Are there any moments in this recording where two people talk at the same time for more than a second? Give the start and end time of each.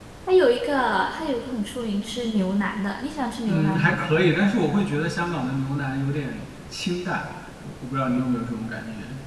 none

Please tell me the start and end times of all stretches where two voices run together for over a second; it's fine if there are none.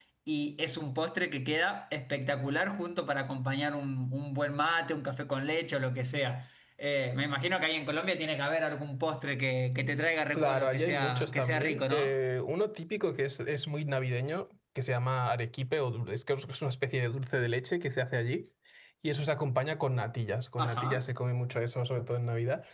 10.3-12.1

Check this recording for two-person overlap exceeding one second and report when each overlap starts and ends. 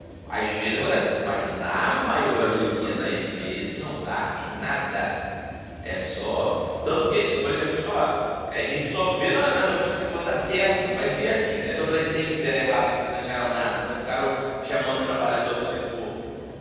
1.8-3.5

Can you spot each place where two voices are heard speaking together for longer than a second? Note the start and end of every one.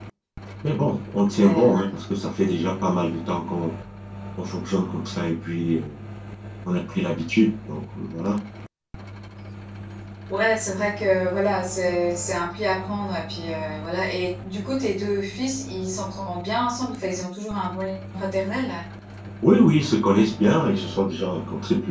none

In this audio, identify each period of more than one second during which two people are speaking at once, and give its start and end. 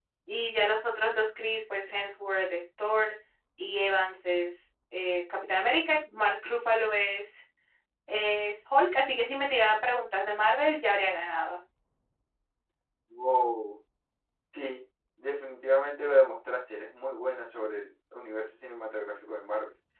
none

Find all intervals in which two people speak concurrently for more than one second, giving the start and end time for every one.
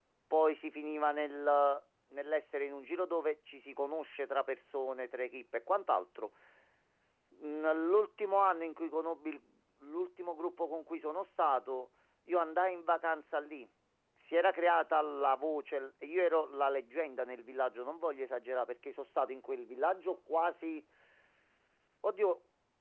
none

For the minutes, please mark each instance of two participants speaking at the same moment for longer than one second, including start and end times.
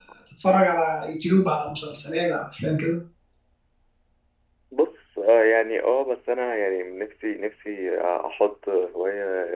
none

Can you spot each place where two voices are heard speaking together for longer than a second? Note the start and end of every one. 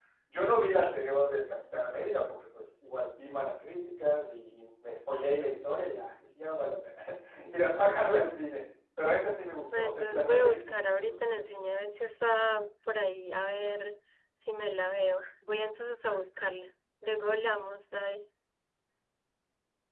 9.8-11.6

